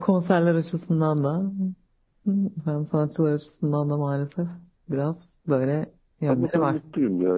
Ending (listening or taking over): taking over